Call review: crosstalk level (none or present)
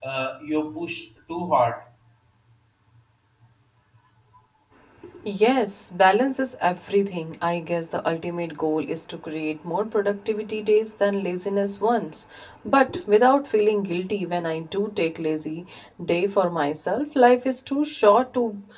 none